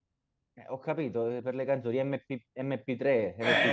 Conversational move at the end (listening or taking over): taking over